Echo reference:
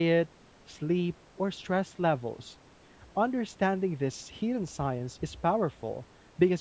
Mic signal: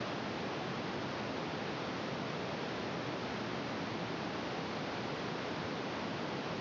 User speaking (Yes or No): No